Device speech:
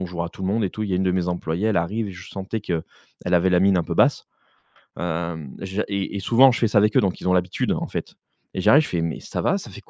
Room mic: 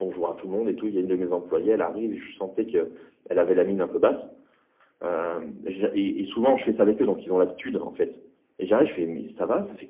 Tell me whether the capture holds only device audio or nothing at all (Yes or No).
Yes